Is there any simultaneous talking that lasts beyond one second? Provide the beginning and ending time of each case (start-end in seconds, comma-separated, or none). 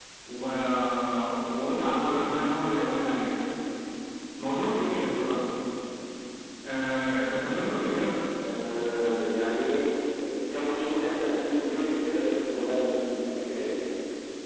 none